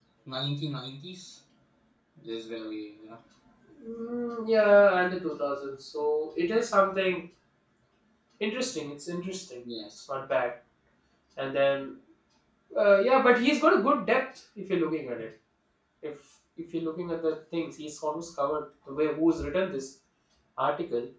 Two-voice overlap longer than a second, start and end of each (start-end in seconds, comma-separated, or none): none